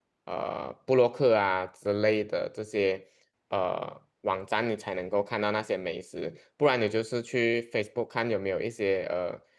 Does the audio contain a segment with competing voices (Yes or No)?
No